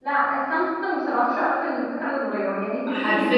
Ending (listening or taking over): taking over